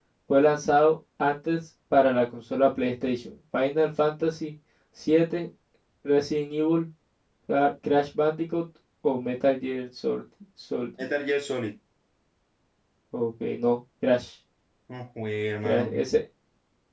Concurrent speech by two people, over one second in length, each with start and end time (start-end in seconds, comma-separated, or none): none